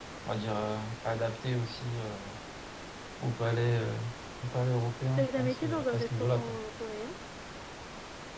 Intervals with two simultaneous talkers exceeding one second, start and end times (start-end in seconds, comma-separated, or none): 5.2-6.6